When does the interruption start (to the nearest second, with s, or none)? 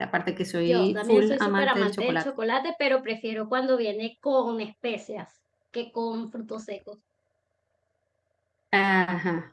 1 s